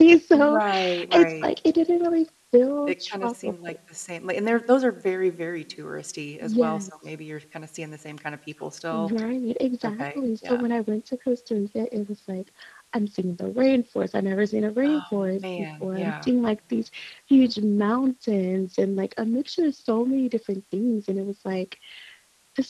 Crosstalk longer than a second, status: present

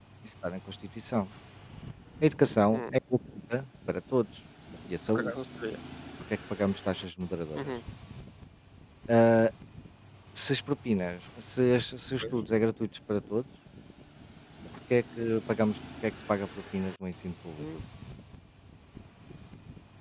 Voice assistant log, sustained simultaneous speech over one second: none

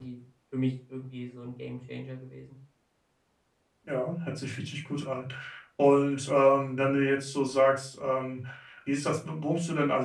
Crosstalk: none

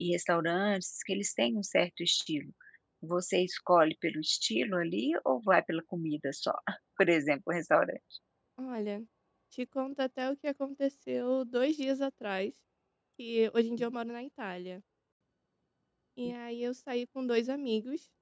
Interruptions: none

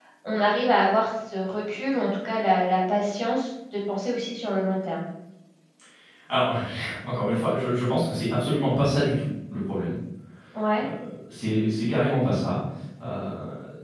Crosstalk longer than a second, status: none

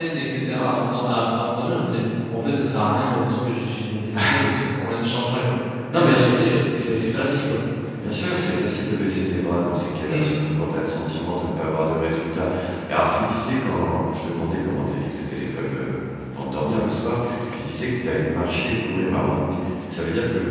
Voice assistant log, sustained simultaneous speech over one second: present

